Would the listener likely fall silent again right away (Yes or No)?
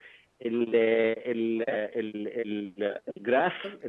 Yes